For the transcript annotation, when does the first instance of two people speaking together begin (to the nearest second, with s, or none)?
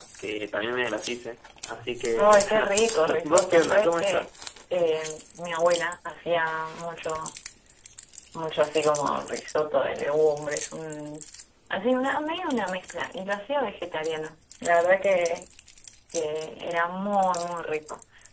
2 s